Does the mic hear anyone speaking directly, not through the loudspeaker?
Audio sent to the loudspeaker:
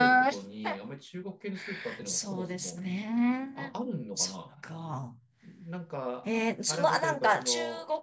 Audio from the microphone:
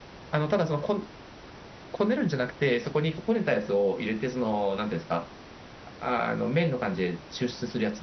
Yes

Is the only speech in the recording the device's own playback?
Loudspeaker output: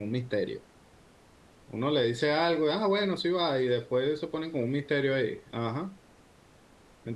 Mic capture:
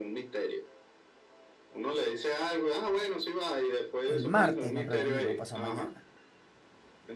No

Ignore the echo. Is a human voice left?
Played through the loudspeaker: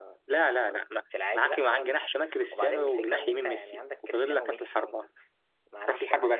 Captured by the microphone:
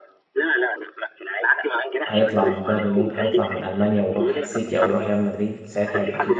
Yes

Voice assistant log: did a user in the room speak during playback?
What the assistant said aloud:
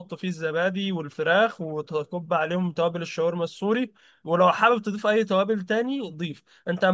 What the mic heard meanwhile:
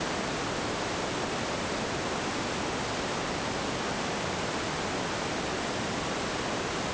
No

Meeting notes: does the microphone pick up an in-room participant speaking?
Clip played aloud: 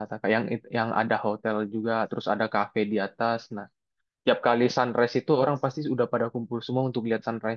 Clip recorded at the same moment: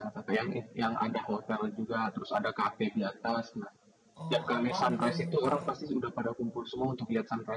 Yes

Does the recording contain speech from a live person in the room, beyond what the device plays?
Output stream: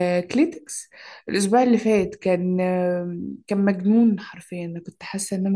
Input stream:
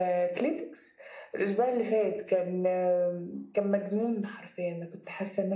No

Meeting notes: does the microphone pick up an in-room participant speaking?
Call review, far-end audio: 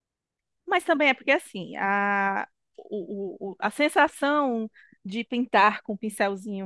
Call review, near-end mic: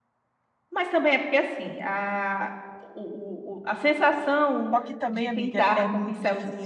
Yes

